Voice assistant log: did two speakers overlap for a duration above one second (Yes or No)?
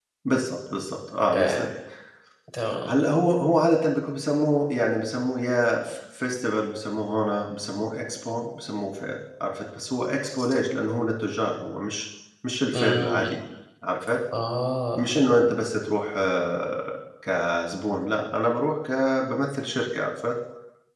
No